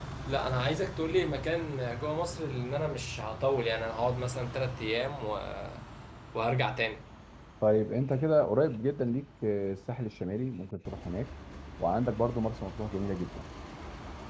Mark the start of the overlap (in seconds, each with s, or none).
none